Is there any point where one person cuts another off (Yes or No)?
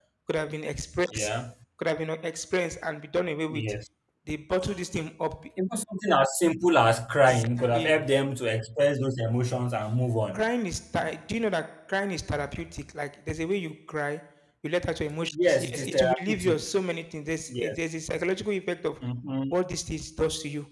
Yes